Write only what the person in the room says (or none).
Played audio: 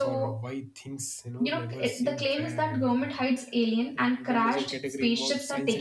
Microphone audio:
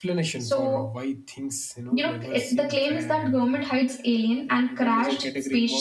none